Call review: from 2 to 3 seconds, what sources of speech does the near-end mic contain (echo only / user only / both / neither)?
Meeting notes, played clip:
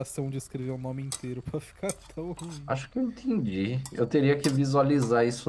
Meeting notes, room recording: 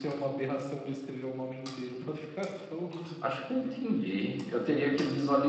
echo only